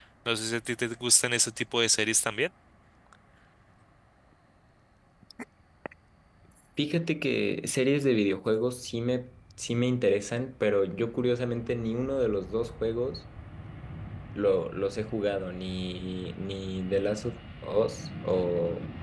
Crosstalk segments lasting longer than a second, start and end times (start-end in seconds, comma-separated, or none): none